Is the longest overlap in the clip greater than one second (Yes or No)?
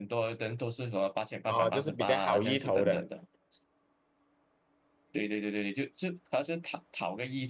Yes